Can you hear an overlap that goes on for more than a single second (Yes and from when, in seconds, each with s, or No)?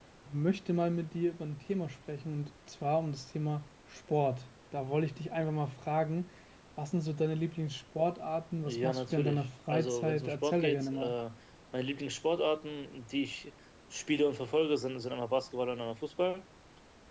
Yes, from 8.6 s